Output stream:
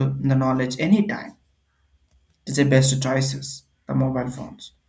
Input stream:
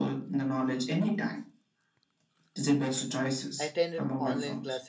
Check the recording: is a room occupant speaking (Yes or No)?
Yes